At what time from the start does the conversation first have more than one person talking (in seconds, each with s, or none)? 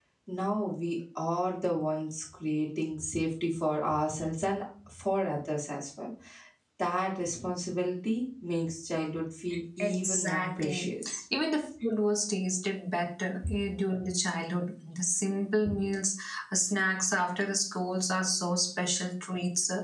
9.8 s